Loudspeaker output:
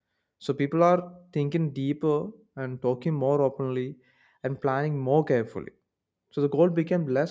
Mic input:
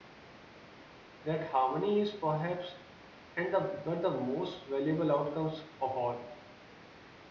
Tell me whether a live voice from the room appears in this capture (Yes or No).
Yes